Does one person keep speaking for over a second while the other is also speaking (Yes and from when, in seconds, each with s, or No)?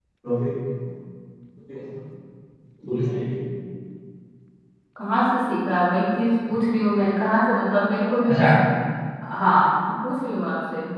No